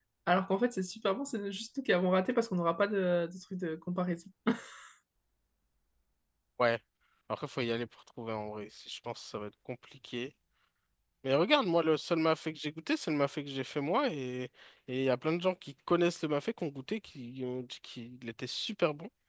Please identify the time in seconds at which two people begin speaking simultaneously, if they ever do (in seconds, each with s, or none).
none